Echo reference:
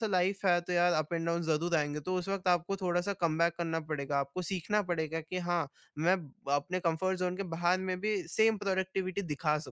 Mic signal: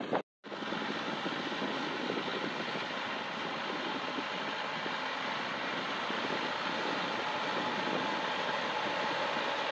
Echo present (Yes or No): No